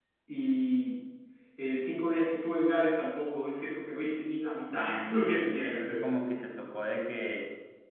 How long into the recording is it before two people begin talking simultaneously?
4.7 s

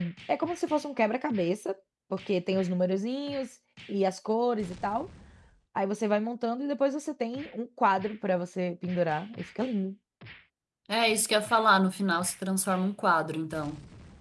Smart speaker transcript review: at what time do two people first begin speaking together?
none

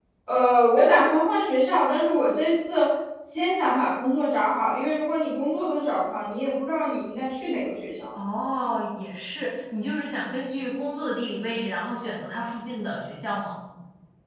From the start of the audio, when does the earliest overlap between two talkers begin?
none

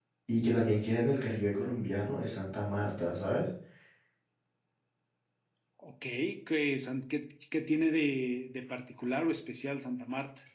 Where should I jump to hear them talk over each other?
none

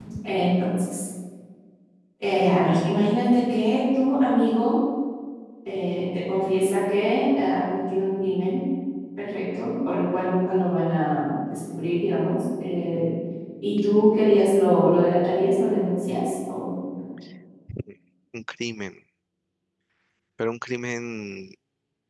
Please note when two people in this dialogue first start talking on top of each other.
none

